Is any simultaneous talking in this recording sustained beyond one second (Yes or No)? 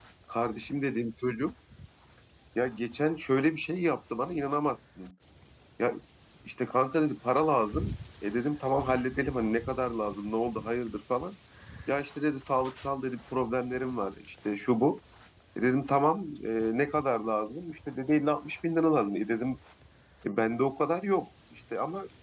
No